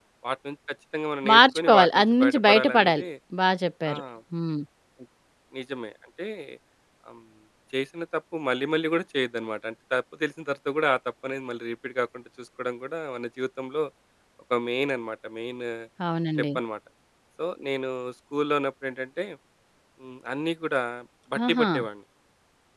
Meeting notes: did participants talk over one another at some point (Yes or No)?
Yes